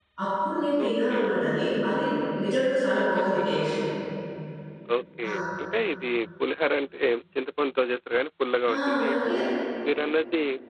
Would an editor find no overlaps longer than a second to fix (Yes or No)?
Yes